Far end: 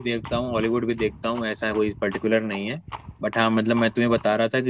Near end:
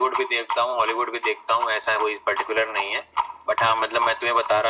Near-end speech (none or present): none